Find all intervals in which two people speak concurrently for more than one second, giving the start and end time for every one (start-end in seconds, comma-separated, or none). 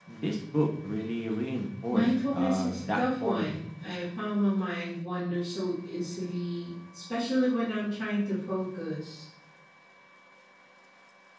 1.9-3.6